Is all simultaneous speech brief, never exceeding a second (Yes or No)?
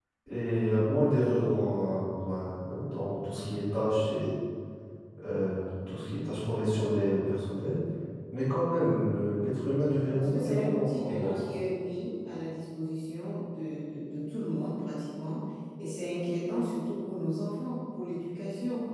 No